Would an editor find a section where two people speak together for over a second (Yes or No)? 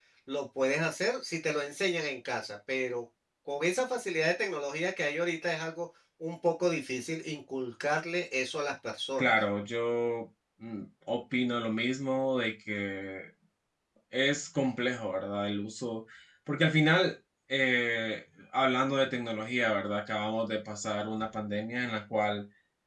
No